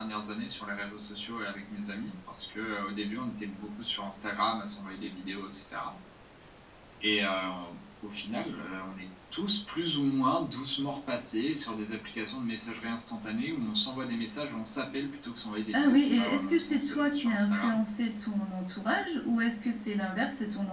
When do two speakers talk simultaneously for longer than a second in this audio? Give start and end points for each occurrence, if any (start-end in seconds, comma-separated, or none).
15.7-17.8